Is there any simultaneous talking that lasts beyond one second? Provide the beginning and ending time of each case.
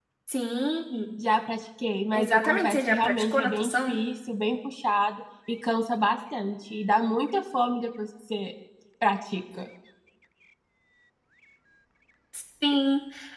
2.1-4.0

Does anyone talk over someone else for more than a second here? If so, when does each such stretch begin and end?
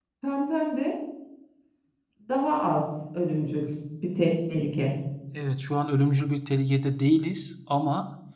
none

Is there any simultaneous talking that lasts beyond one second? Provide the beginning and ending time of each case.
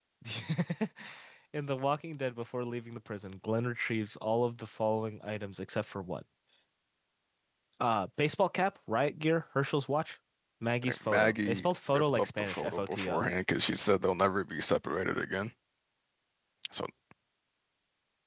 10.8-13.2

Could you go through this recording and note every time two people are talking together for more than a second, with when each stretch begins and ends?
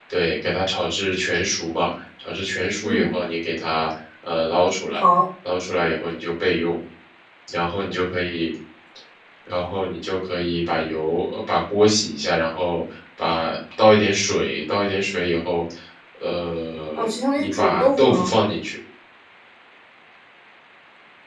16.9-18.3

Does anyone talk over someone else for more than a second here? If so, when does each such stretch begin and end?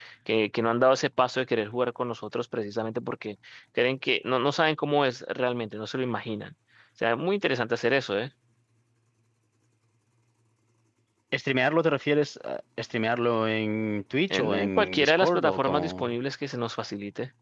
14.3-16.1

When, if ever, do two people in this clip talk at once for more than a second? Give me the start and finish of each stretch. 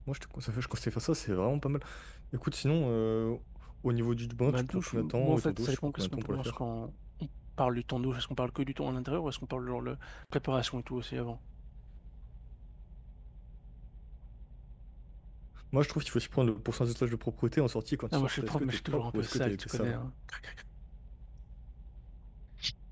4.5-6.6, 18.1-19.9

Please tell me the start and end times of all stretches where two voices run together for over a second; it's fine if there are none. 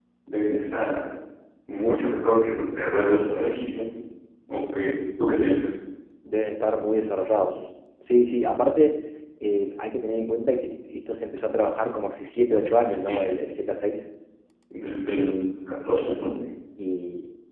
none

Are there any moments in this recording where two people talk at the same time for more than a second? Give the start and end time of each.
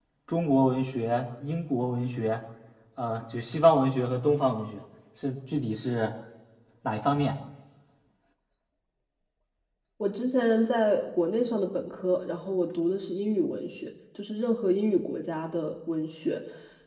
none

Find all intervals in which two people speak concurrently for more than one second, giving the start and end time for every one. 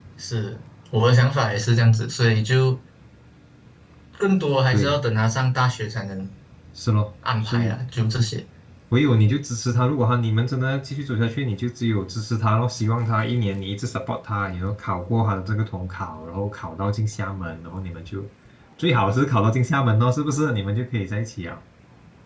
none

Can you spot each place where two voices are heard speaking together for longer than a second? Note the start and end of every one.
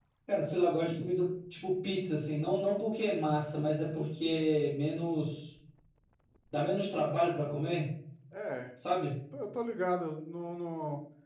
none

